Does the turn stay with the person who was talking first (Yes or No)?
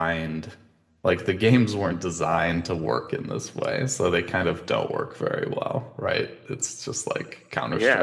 No